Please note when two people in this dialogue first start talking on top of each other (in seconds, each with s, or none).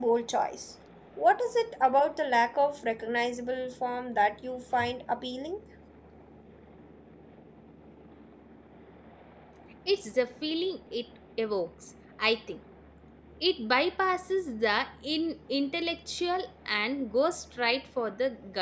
none